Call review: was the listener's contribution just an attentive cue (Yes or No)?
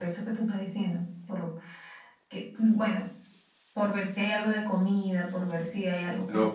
No